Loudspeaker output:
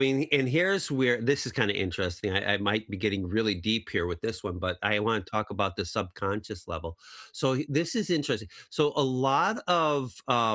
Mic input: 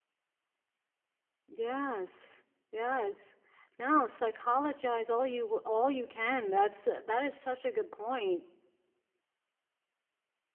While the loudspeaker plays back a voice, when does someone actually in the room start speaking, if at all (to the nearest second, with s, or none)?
1 s